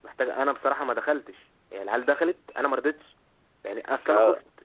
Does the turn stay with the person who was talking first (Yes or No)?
Yes